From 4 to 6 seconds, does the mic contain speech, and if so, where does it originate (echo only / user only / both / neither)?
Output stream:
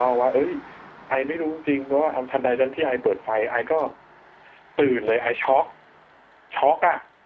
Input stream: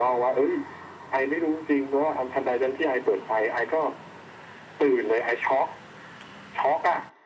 echo only